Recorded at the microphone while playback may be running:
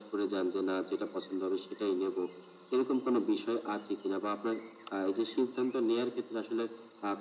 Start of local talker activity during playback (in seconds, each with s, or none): none